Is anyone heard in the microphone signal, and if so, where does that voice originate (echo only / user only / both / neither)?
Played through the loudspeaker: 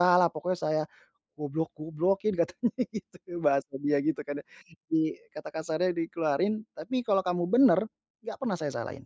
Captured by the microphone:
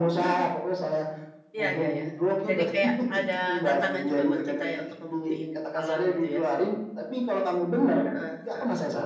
both